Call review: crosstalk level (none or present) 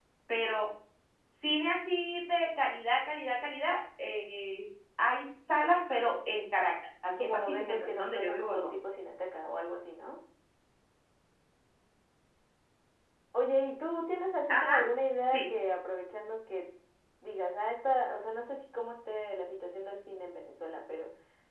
present